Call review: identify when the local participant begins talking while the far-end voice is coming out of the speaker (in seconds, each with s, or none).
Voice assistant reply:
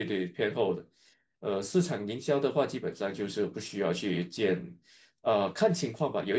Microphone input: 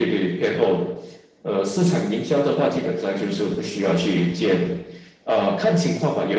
none